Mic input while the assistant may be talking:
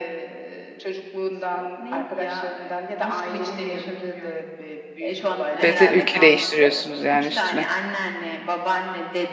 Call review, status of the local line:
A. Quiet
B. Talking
B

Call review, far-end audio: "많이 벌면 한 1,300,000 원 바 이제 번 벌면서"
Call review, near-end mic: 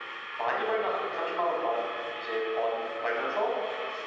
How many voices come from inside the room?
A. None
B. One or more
A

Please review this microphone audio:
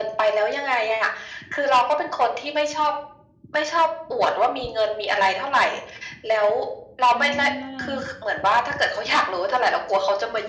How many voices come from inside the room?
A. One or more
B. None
A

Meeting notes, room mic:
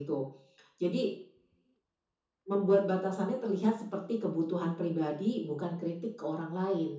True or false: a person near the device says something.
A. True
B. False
B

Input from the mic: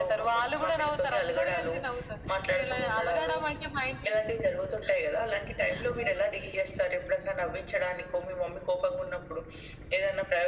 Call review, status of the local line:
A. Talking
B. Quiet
B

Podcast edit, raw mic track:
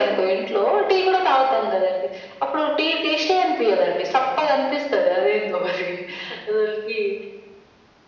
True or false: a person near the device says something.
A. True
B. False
B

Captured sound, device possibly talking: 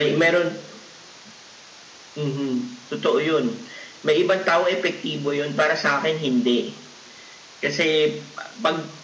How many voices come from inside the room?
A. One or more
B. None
B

